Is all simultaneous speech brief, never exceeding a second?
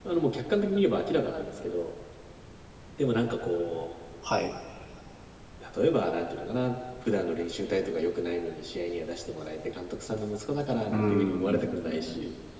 No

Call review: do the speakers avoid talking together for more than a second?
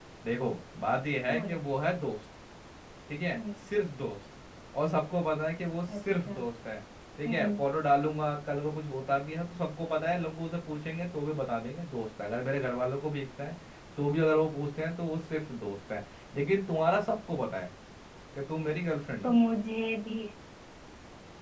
Yes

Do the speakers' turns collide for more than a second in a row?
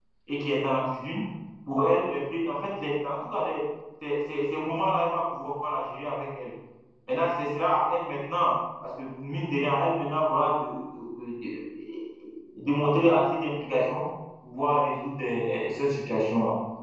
No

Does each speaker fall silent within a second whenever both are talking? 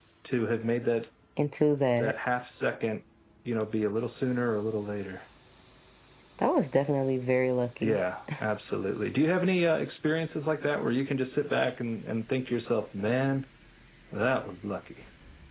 Yes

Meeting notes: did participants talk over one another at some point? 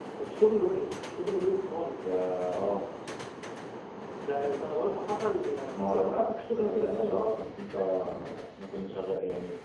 Yes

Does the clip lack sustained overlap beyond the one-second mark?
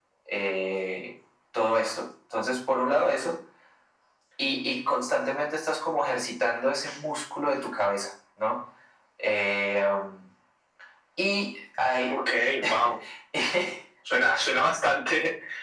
Yes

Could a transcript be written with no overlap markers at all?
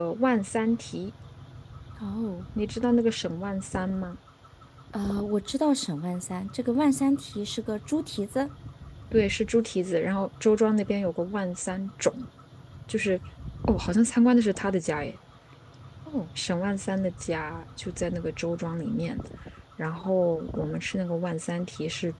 Yes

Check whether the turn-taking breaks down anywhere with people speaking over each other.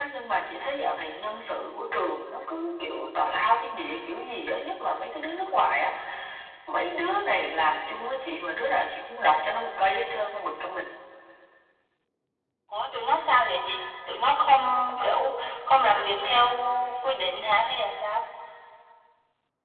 No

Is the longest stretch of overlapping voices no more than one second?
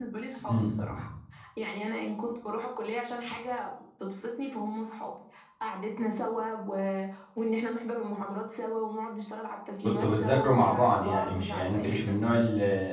No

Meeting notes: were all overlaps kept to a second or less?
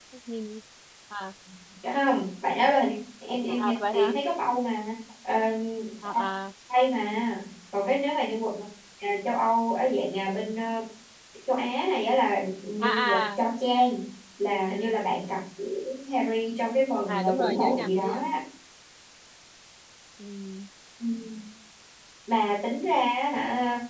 No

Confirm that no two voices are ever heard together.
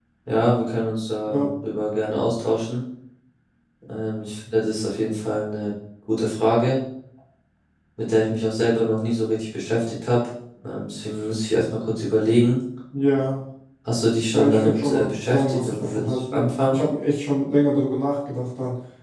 No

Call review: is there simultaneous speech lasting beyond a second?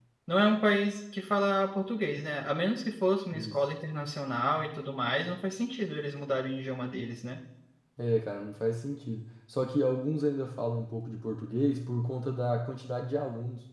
No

